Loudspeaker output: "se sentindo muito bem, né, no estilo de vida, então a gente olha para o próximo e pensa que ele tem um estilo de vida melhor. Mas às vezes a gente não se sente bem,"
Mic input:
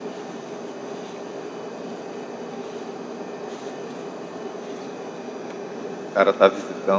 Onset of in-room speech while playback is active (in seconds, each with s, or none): 6.1 s